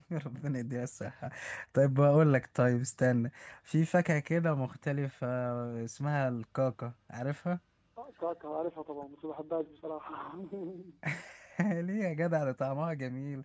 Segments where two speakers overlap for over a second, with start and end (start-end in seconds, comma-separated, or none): none